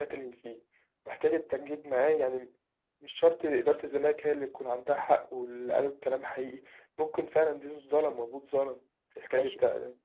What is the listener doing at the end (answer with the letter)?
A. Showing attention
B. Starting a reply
B